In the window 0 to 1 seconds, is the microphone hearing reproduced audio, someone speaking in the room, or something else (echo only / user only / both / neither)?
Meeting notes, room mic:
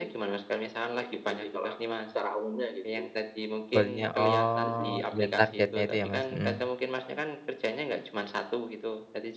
echo only